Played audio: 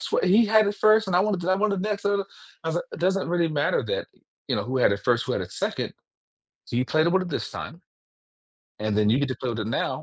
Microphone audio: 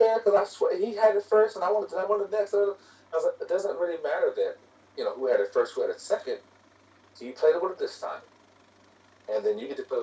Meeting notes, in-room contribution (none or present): none